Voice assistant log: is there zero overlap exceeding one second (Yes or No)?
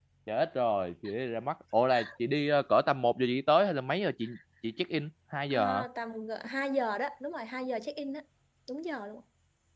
Yes